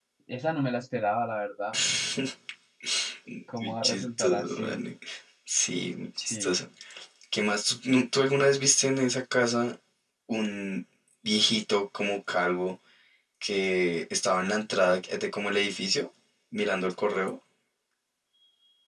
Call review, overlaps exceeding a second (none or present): present